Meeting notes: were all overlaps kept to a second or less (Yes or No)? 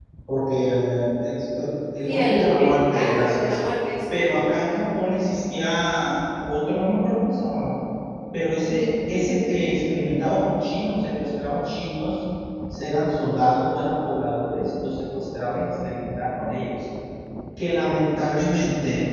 No